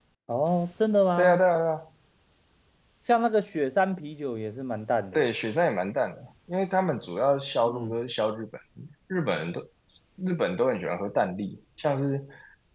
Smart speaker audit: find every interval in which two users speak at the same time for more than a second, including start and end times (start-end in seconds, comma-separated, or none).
none